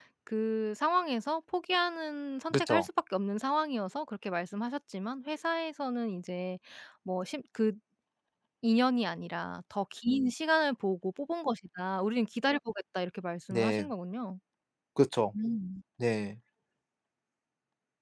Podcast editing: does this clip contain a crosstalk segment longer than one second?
No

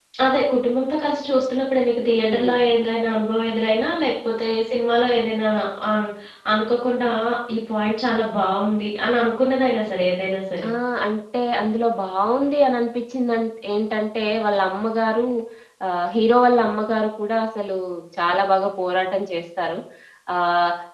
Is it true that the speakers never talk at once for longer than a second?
Yes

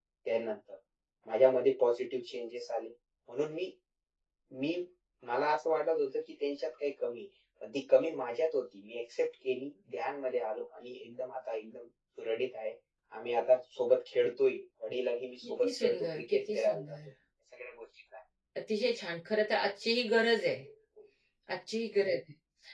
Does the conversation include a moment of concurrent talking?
Yes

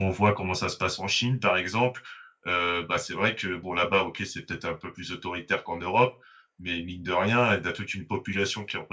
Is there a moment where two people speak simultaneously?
No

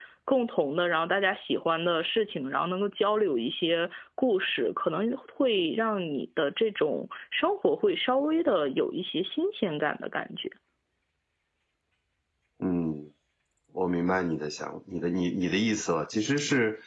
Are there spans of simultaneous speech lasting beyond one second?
No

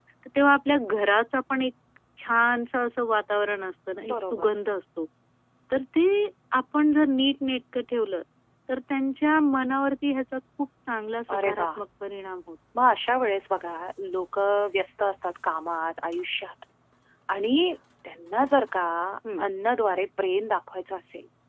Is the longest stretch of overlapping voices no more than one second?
Yes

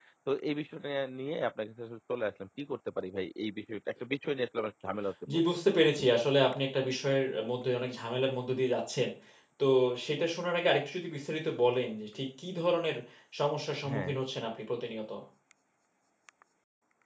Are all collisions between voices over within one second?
Yes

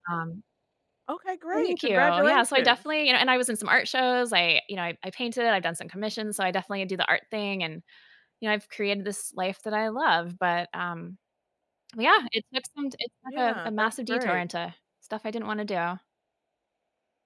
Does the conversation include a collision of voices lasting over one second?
Yes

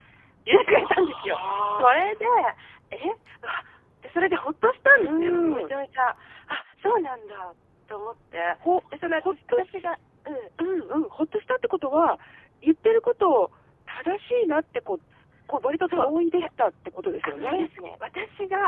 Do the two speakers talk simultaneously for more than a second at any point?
Yes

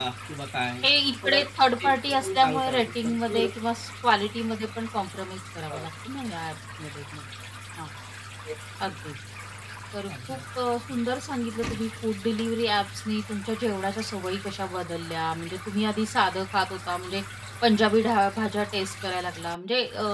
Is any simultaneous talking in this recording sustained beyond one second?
Yes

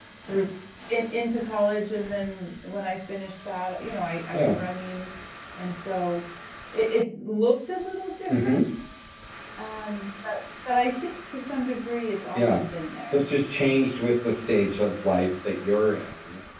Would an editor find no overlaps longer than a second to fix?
Yes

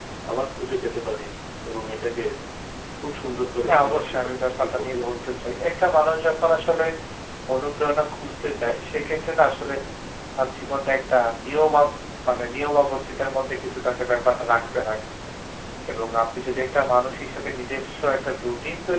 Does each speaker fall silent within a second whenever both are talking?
No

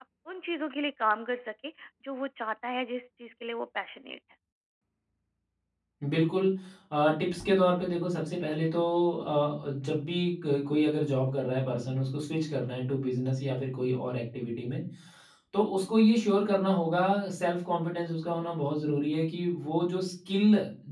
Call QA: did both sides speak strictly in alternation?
Yes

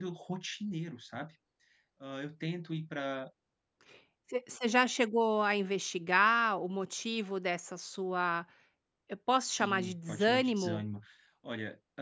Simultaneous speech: Yes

